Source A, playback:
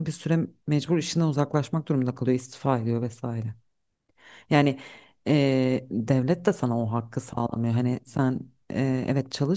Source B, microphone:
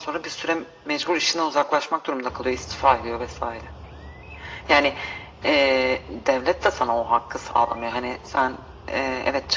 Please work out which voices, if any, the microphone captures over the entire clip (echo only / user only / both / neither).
echo only